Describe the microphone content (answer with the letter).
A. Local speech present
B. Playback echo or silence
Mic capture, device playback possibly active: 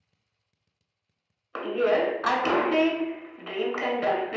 B